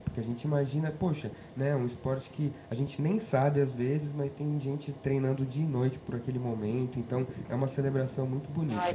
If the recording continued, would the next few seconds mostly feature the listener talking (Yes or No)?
Yes